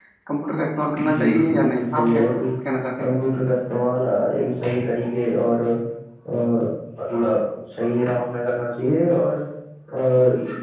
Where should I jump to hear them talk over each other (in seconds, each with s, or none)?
0.9 s